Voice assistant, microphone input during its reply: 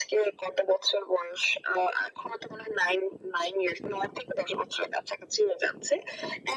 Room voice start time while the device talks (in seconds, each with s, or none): none